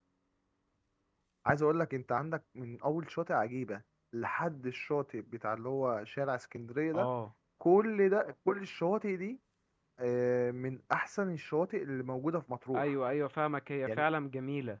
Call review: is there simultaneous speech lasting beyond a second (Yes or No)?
No